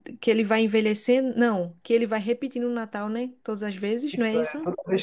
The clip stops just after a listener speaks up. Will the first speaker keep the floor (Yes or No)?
No